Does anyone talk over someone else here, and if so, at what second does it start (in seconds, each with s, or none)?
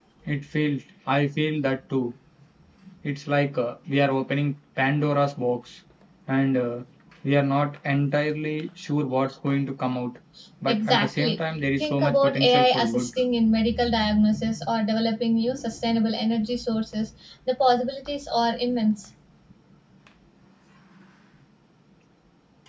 10.7 s